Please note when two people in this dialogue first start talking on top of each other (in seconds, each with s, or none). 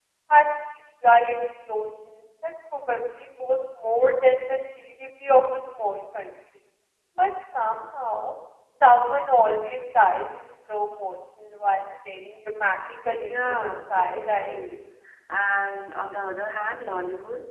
13.3 s